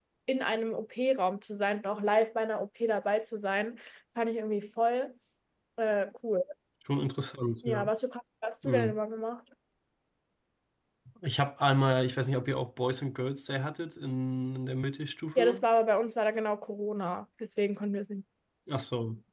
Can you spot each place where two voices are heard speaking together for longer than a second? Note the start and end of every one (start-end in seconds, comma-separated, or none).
none